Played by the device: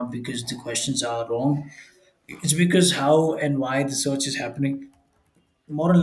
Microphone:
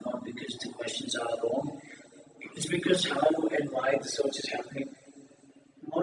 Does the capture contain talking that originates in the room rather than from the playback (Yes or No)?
No